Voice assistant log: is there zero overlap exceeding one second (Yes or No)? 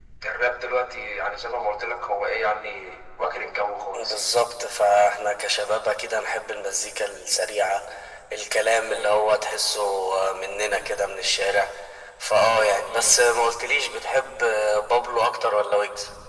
Yes